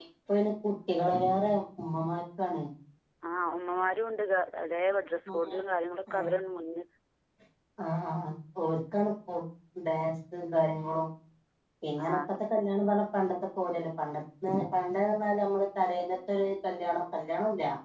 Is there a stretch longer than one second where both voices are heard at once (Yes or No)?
No